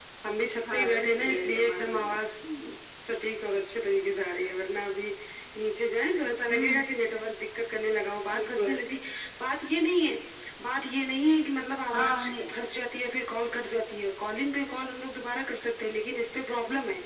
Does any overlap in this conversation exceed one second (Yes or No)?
Yes